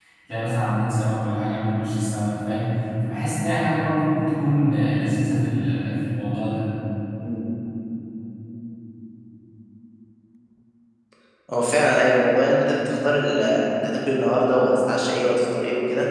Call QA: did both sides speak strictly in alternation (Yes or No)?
Yes